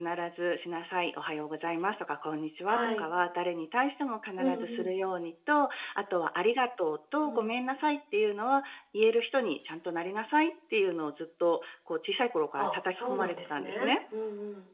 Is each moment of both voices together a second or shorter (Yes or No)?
No